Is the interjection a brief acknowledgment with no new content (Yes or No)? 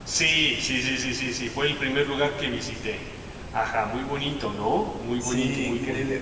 No